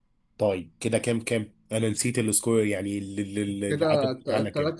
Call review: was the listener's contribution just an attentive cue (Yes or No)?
No